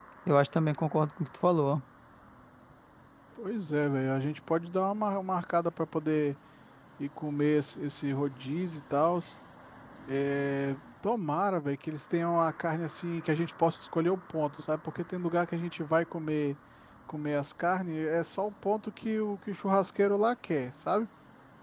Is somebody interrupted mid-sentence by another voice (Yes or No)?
No